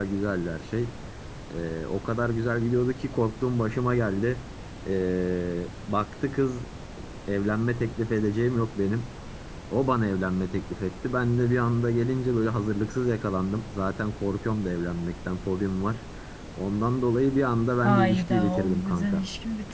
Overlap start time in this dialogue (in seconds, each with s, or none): 17.8 s